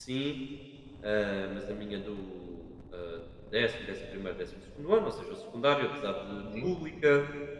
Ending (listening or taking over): listening